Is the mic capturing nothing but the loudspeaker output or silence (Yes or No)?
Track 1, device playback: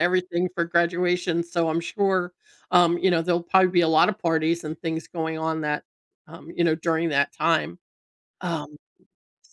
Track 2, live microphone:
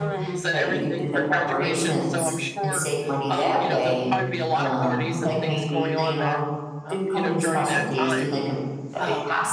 No